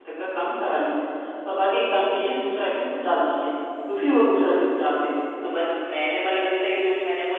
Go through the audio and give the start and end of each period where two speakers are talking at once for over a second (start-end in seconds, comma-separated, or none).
none